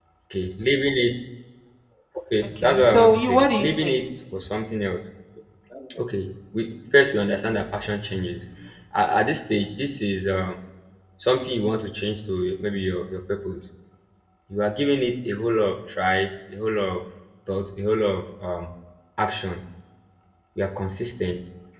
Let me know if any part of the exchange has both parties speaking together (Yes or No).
Yes